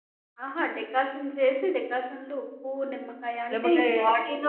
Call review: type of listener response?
listening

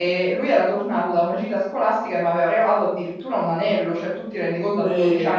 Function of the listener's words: listening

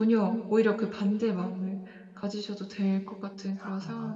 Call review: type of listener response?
taking over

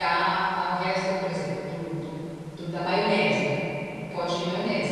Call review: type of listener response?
taking over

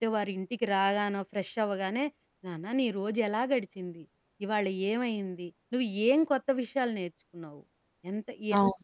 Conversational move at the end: listening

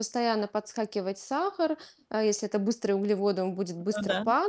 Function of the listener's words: listening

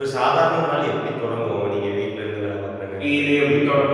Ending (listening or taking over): taking over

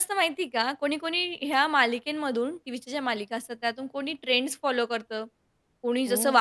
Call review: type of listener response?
listening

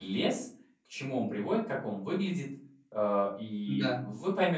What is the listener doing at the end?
listening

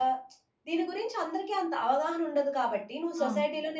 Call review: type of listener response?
listening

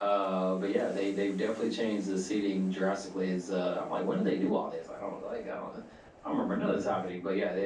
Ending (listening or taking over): listening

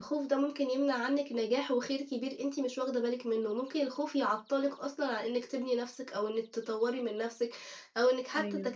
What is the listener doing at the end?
listening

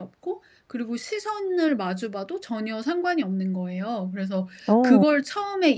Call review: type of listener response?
listening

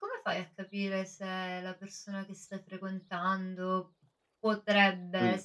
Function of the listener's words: listening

